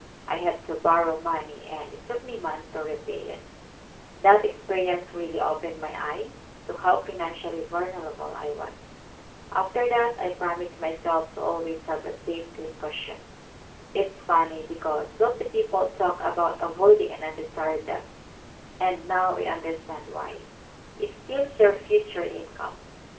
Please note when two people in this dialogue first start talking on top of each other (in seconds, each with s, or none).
none